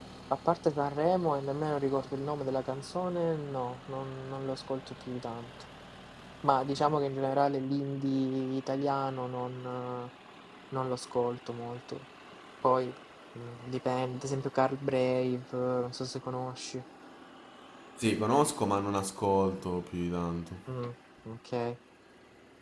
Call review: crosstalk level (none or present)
none